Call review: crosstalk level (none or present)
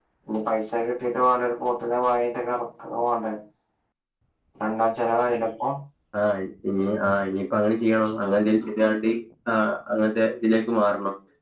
none